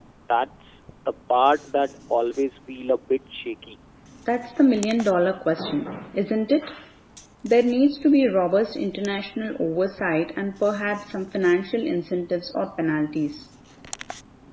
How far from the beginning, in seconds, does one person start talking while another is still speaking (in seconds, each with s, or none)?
none